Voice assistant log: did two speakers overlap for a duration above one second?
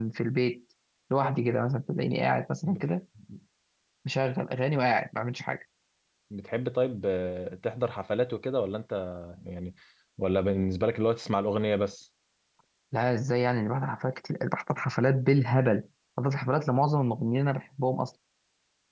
No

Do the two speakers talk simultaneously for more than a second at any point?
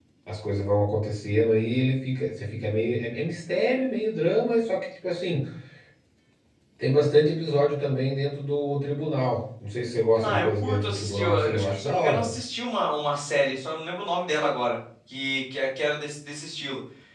Yes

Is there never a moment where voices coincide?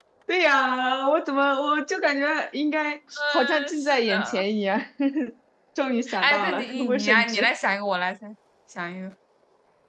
No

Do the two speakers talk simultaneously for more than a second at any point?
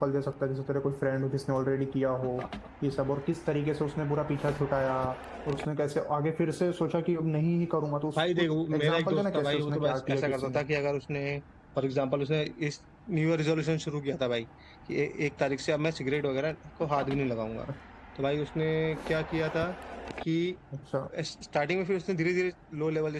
Yes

